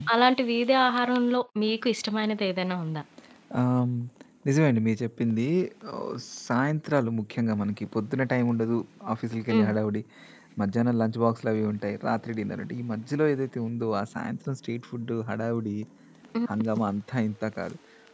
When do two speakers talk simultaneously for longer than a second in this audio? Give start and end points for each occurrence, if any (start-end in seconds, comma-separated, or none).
none